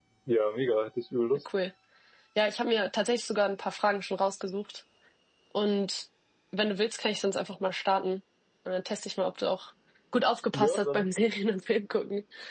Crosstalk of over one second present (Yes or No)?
No